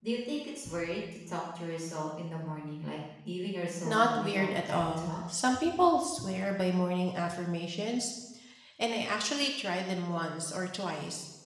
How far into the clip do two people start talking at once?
3.8 s

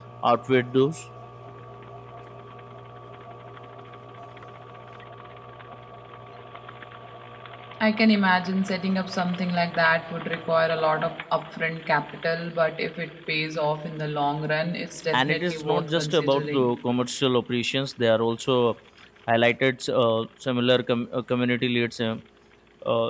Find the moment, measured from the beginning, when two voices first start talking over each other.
15.1 s

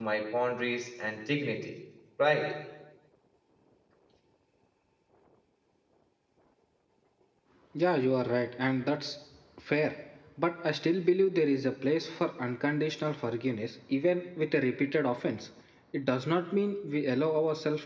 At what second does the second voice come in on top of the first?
none

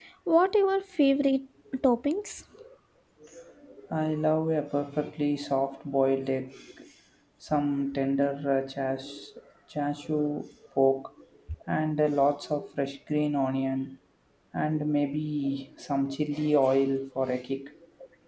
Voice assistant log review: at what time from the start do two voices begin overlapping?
none

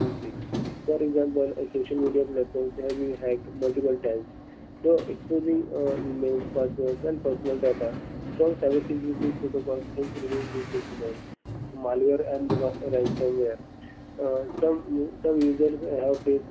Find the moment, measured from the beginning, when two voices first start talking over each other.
none

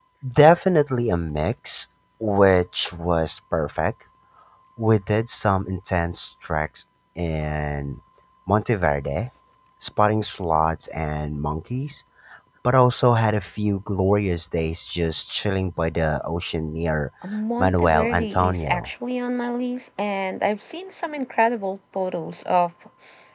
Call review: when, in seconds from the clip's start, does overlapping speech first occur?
17.6 s

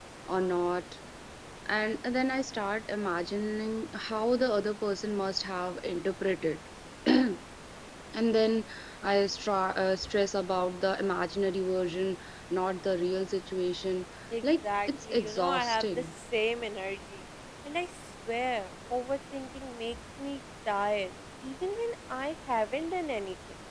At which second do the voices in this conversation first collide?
14.6 s

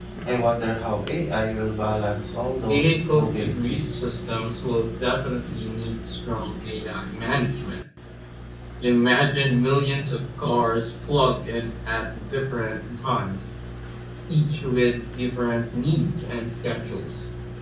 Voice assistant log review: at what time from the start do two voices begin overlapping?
2.6 s

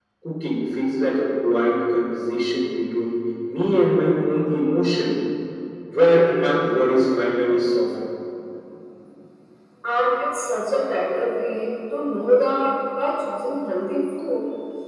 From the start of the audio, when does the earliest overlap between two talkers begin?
none

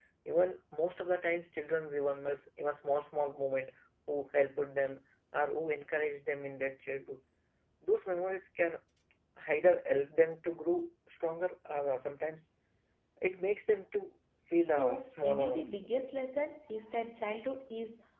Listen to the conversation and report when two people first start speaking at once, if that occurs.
14.6 s

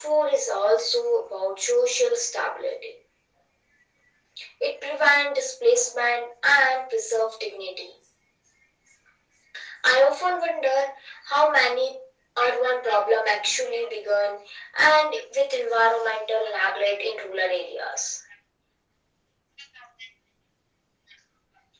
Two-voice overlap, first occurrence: none

